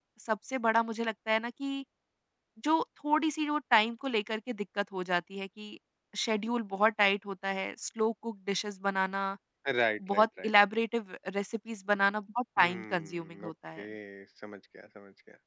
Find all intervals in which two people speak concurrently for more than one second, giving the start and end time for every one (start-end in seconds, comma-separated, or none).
12.6-13.8